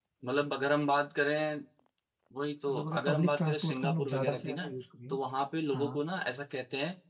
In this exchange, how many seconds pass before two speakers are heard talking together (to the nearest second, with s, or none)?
3 s